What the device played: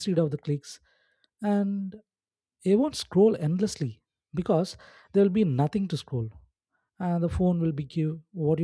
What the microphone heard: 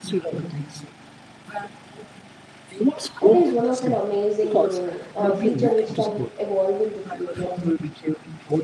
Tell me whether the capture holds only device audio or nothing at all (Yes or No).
No